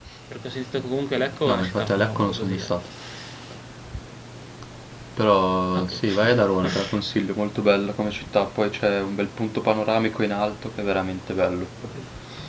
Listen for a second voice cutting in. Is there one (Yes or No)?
Yes